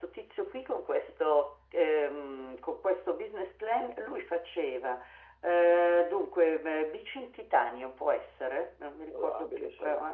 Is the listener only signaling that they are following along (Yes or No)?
Yes